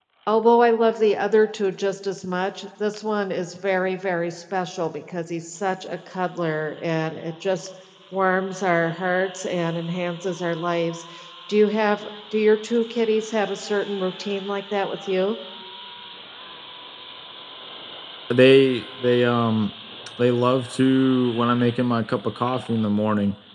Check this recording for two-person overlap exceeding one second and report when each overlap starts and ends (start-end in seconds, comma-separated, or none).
none